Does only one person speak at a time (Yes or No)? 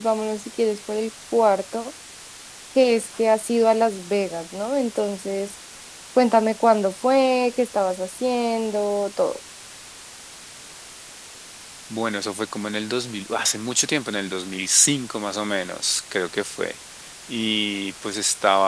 Yes